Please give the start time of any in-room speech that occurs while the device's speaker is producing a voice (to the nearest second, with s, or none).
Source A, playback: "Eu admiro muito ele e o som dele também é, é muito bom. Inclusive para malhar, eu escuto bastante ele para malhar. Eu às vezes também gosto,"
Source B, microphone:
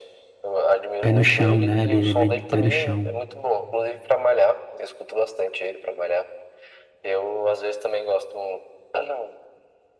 1 s